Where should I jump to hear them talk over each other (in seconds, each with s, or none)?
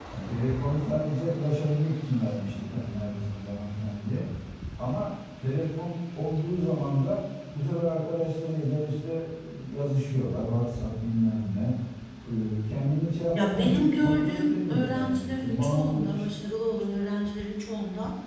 13.3 s